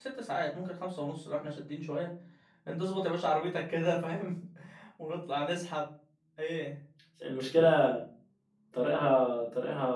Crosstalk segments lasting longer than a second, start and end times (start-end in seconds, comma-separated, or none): none